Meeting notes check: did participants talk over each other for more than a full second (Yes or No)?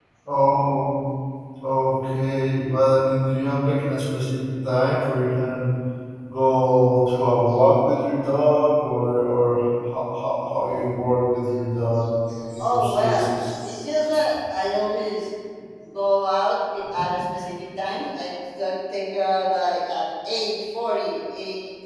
Yes